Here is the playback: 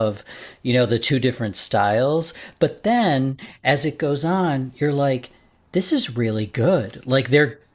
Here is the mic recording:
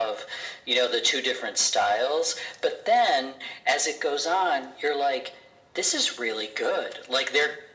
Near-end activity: none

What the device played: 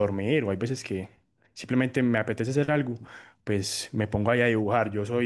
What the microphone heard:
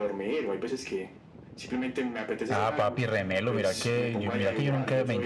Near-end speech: present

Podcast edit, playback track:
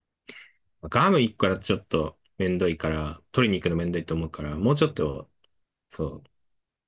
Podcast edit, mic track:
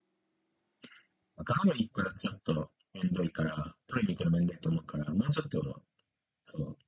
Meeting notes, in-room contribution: none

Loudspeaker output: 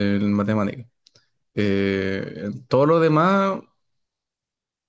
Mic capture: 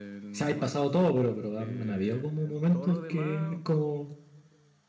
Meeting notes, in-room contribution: present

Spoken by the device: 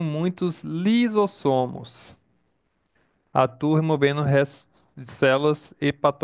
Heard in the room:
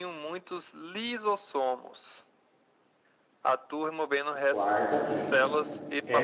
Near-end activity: present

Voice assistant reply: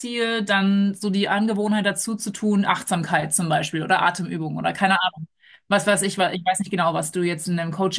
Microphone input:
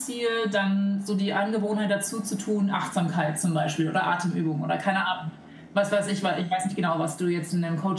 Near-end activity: none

